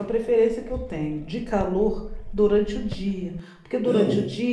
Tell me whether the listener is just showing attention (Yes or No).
Yes